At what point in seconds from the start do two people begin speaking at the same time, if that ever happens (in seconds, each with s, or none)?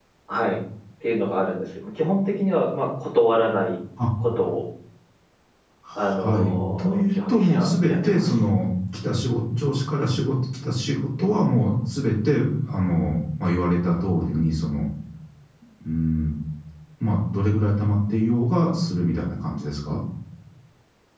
6.1 s